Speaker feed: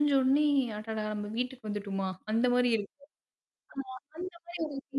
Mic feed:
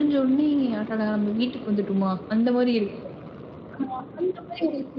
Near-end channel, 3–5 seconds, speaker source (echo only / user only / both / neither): echo only